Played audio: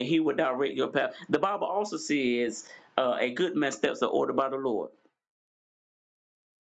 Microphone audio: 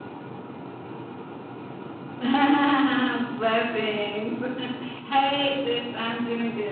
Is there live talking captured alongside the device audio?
Yes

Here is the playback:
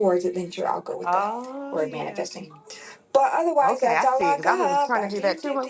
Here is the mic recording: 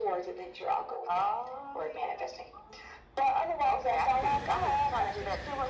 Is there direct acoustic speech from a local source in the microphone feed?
No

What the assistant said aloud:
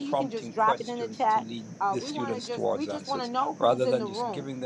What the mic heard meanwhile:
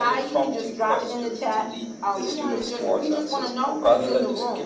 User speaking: No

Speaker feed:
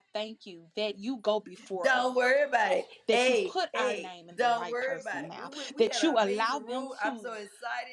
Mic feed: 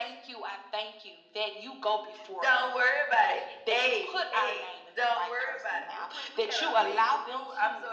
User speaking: No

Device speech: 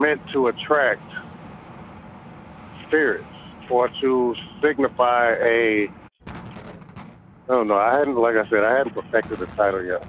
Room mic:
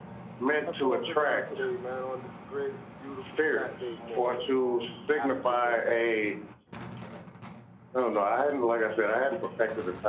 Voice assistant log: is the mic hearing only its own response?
No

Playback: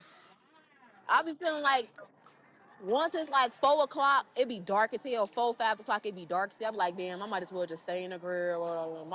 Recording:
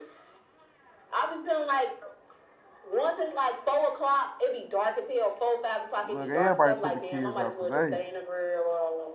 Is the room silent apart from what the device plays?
No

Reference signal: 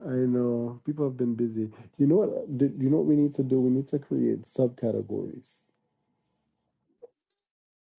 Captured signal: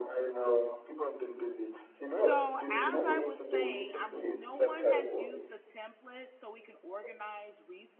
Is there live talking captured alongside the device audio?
Yes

